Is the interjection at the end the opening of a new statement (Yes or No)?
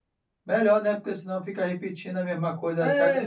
Yes